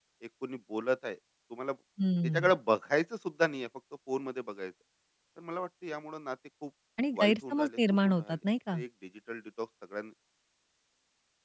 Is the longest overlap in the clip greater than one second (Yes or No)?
Yes